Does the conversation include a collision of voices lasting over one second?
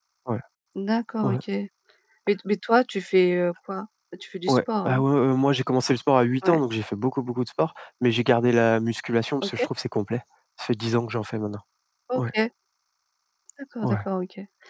No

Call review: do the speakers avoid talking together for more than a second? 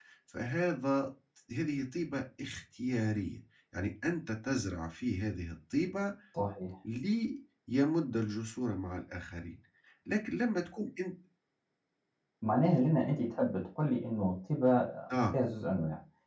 Yes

